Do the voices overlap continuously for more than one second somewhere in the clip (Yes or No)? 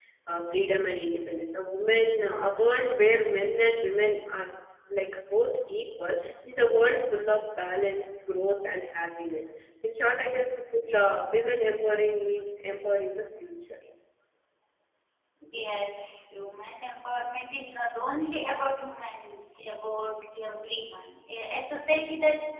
No